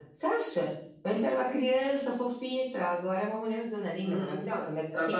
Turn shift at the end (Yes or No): Yes